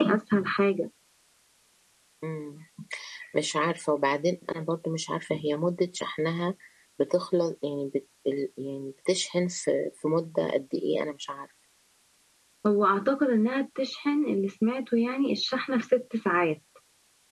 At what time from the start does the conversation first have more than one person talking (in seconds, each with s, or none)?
none